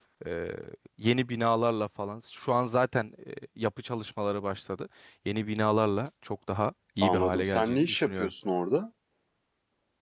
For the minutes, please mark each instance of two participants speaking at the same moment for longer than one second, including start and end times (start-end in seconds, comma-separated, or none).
7.0-8.3